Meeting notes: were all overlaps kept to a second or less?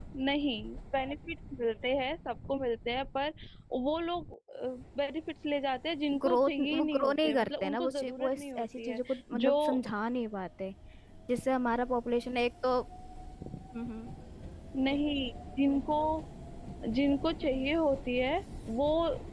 No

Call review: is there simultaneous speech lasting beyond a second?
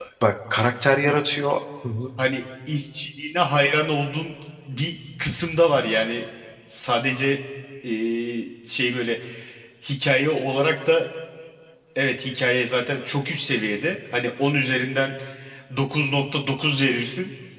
No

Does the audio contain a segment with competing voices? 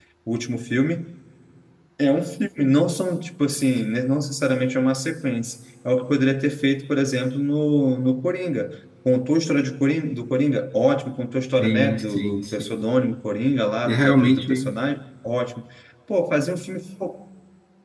Yes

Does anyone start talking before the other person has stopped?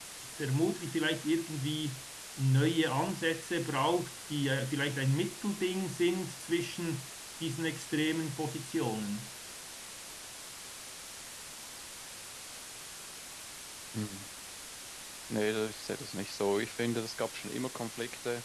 No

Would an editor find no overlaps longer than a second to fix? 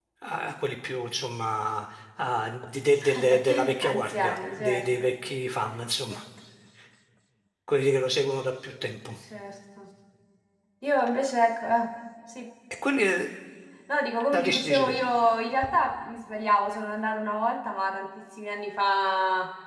No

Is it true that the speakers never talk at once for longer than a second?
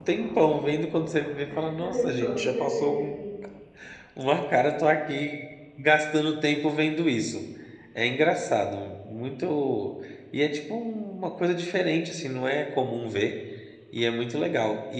No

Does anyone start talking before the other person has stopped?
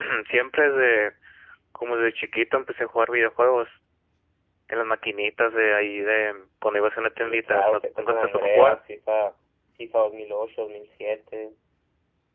Yes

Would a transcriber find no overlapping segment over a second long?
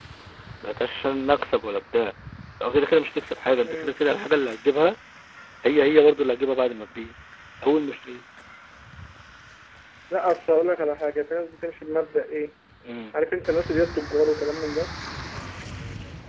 Yes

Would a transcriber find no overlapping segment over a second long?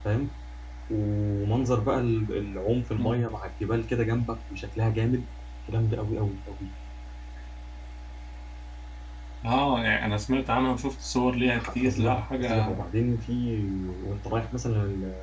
No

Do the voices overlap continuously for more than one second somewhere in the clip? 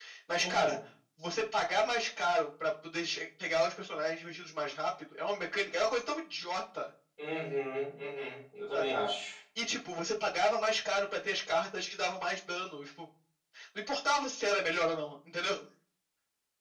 No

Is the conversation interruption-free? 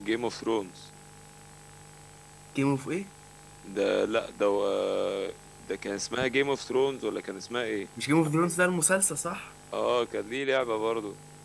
Yes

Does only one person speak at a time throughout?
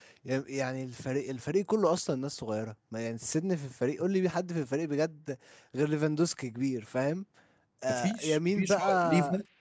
No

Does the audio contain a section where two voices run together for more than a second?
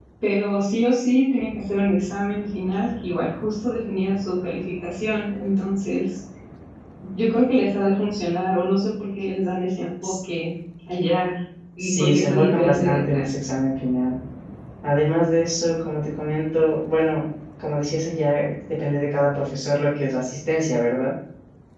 Yes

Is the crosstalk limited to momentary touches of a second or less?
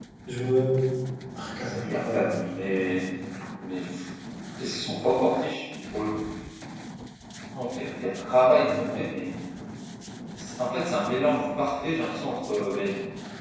No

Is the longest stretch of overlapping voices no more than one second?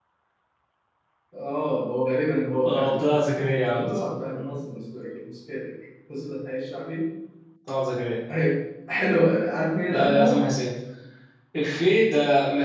Yes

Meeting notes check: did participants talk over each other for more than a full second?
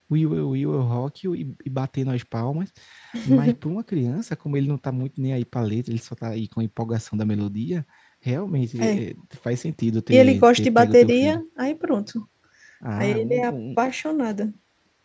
Yes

